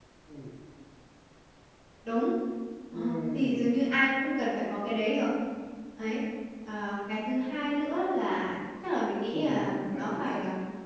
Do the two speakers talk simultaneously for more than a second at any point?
Yes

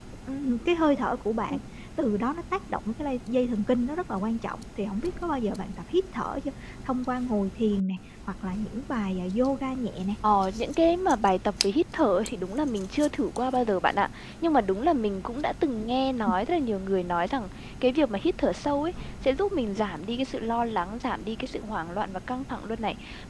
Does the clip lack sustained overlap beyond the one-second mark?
Yes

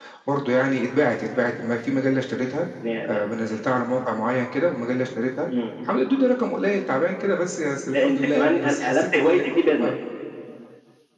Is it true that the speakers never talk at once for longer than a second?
No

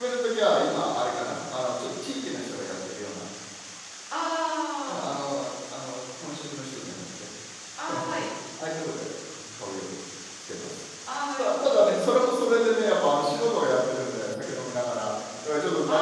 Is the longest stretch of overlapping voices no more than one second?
Yes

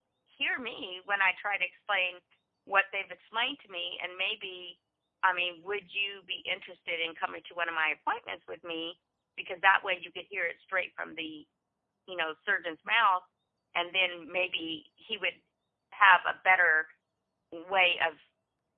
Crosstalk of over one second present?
No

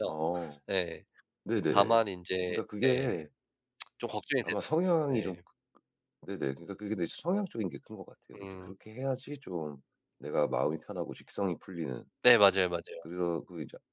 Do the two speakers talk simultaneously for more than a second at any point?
No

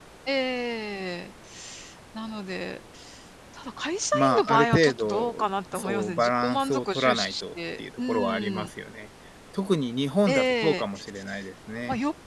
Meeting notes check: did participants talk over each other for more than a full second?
Yes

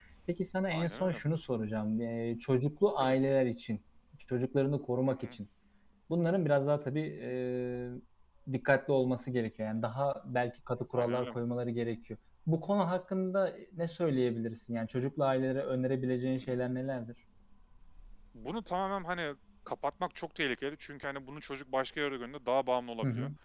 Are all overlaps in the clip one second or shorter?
Yes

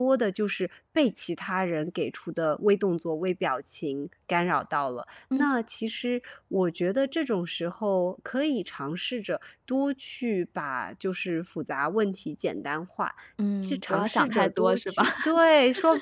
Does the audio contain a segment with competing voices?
Yes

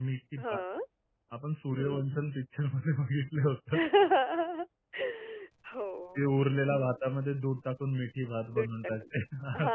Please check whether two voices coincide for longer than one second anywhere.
No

